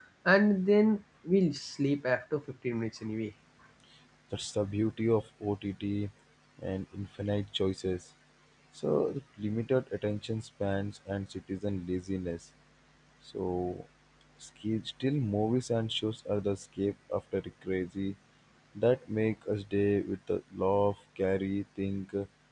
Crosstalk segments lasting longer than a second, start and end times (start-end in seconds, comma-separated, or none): none